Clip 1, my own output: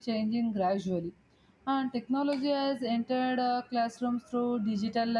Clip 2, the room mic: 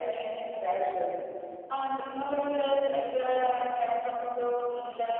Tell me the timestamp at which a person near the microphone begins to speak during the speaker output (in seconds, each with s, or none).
none